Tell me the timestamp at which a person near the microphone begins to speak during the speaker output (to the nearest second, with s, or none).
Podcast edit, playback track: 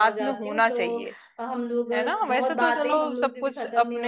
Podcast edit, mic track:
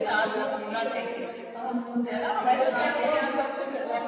3 s